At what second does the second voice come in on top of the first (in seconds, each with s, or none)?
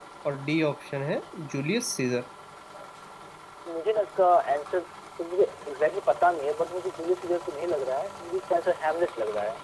none